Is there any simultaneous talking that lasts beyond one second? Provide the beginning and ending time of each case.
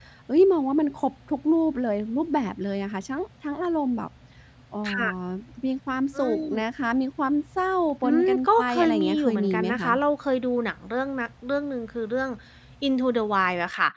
8.0-9.9

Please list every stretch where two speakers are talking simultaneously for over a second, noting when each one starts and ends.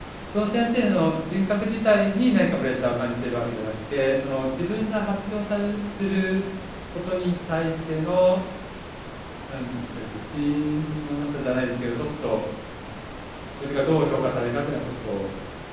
none

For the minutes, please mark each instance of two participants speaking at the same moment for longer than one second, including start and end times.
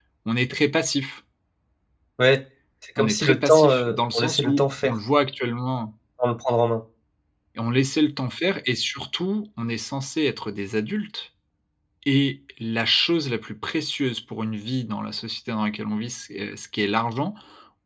3.0-5.0

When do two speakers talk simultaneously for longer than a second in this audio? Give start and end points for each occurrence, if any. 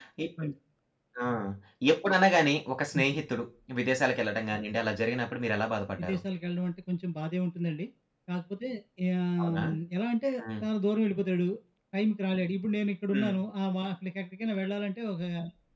none

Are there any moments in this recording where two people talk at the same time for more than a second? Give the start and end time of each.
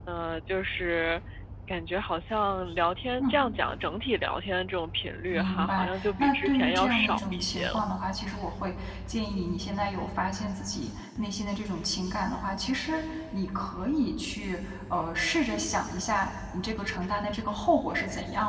5.3-7.8

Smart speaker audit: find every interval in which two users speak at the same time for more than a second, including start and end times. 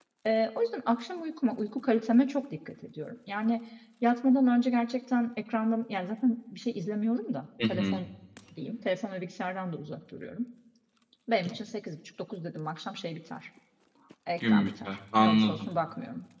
14.5-15.7

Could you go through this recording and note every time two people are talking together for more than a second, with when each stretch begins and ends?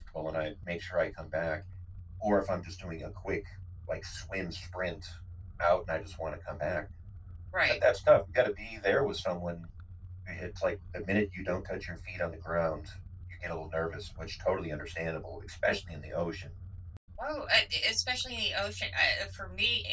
none

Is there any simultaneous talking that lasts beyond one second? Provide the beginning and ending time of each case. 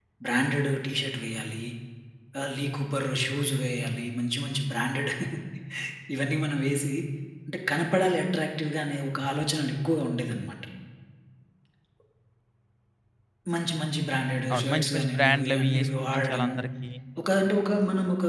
14.5-16.5

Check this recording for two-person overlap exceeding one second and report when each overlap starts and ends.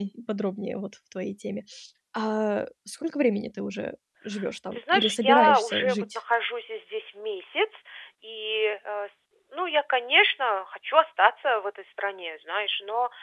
4.7-6.2

